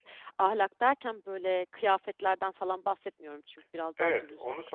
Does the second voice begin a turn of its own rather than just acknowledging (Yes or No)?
Yes